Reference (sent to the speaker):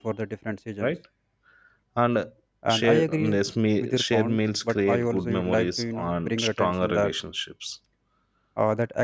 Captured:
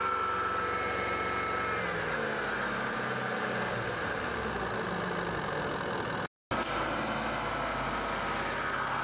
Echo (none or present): none